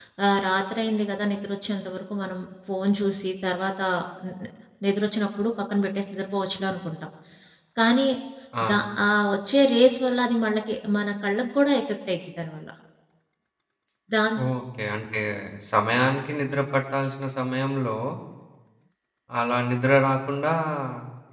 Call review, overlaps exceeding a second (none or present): none